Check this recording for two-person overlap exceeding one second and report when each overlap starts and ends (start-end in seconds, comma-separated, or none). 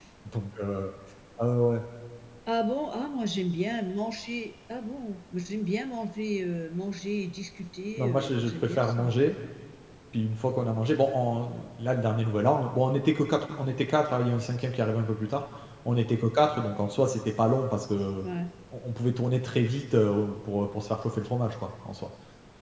8.0-9.2